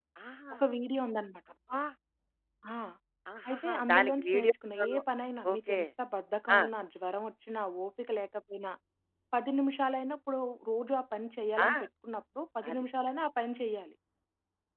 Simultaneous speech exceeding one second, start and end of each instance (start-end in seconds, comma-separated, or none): 3.5-5.0